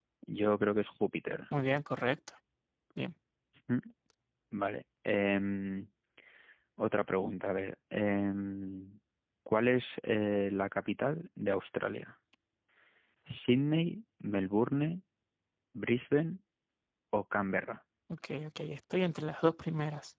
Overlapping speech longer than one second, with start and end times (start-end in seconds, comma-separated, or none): none